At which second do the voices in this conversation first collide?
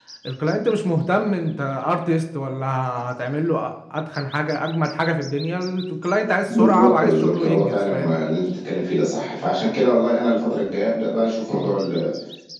6.5 s

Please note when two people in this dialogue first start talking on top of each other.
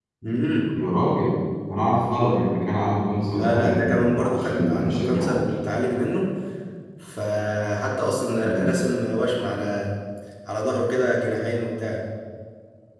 3.3 s

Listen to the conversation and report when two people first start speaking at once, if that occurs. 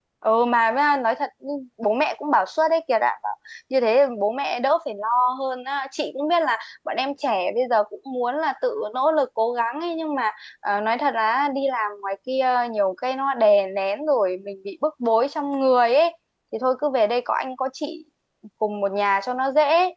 none

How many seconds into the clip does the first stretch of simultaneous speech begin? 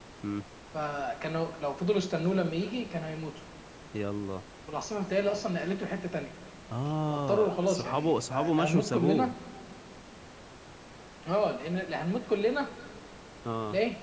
7.1 s

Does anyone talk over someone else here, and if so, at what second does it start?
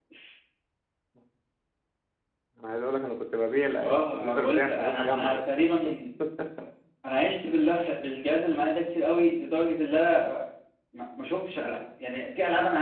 3.8 s

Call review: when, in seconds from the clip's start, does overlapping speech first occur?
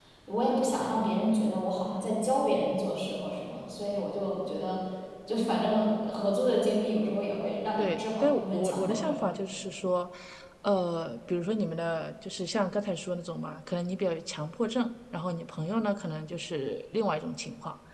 7.8 s

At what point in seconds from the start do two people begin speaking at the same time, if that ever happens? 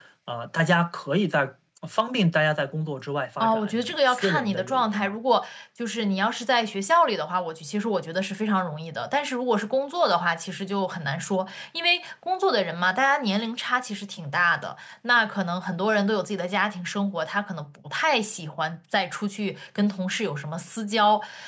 3.4 s

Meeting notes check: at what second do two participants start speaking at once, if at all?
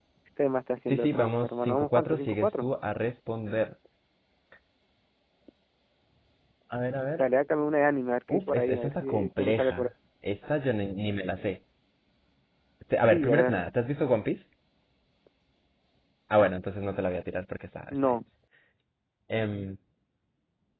0.8 s

